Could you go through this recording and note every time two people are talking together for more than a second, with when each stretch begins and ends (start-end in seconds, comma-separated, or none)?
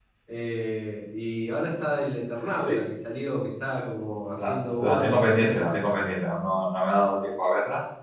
4.4-5.8